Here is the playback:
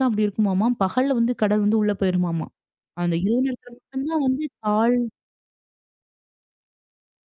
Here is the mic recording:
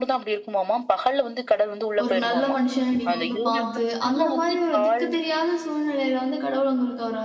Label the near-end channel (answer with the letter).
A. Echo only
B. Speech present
B